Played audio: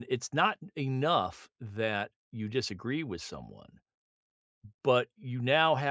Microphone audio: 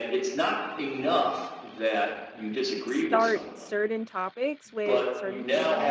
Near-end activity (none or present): present